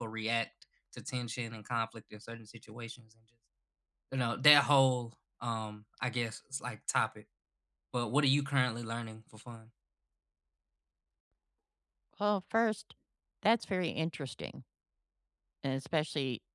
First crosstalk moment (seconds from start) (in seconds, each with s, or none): none